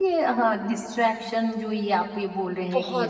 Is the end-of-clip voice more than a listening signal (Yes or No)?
No